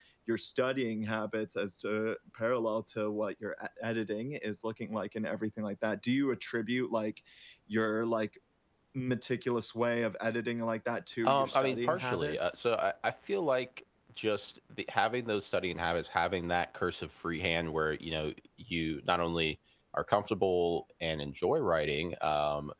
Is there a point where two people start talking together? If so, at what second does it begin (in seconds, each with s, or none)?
11.2 s